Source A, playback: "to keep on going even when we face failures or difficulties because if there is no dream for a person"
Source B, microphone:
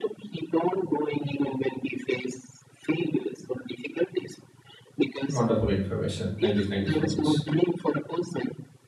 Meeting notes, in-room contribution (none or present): present